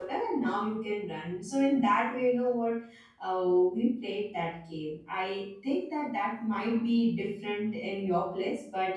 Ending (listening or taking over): listening